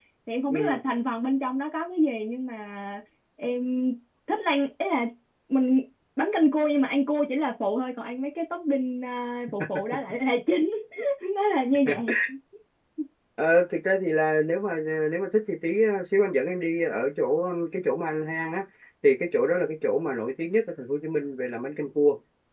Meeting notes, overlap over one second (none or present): none